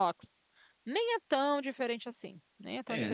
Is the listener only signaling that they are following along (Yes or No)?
No